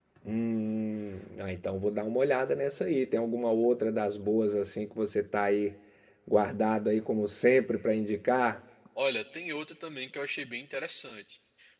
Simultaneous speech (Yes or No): No